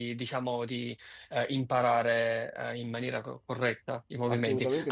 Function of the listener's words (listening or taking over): listening